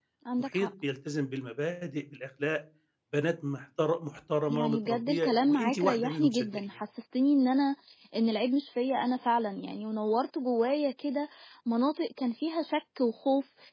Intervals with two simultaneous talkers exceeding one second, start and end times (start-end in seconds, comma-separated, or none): 4.5-6.6